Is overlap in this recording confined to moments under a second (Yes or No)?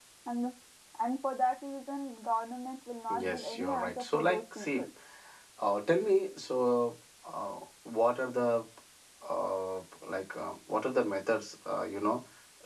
No